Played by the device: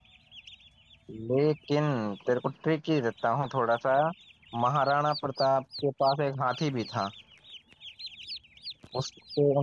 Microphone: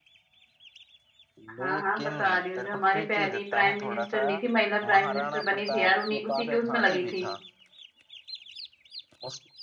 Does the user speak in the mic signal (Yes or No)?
Yes